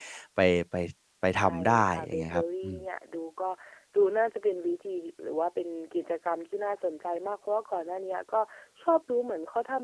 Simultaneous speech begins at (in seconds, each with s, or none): 1.4 s